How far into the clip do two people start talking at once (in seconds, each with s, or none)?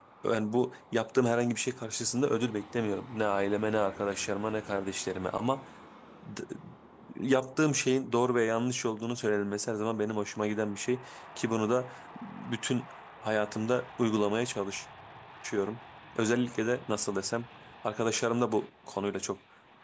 none